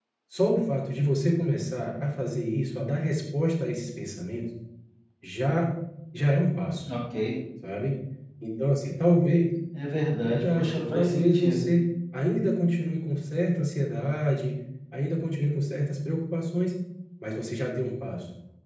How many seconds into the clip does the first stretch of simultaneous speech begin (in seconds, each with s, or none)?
10.2 s